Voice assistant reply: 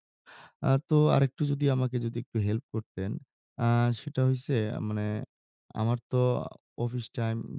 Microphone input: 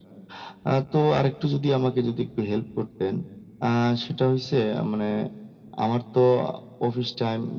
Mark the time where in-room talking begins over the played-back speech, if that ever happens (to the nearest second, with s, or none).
none